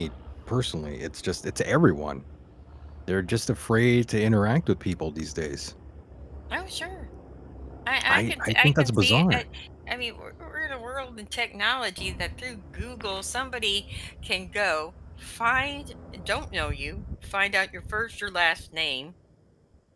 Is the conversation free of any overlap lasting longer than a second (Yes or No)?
No